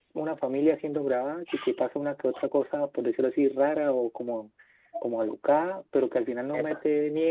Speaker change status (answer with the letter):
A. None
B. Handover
A